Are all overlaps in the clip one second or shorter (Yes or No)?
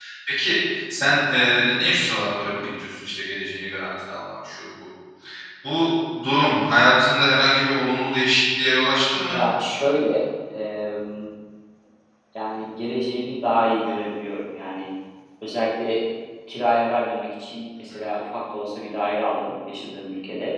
Yes